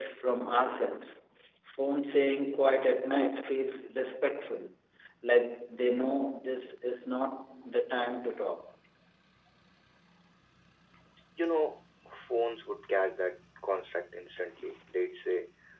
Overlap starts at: none

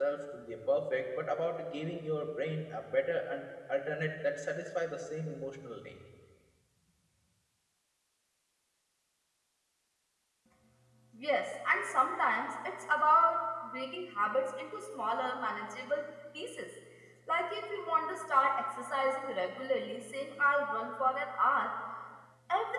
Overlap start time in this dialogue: none

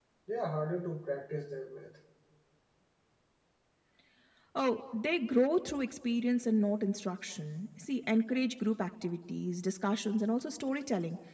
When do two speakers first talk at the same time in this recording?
none

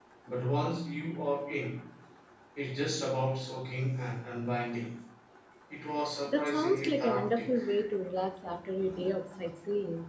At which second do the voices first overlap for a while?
6.3 s

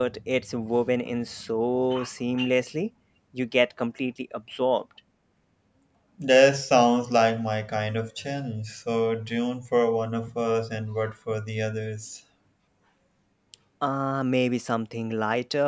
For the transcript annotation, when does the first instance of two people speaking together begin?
none

